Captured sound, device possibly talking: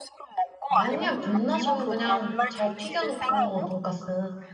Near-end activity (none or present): present